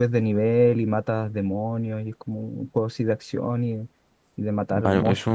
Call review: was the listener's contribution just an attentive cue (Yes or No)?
No